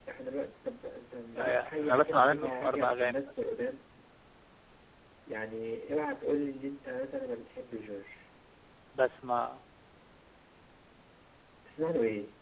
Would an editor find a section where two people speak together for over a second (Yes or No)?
Yes